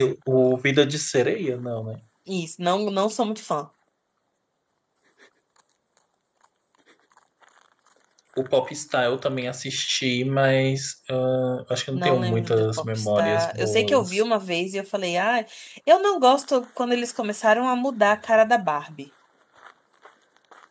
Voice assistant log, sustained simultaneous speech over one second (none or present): present